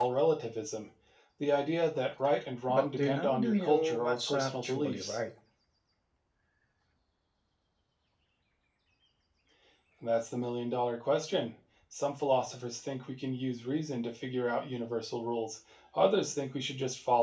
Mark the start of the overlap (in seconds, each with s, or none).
2.7 s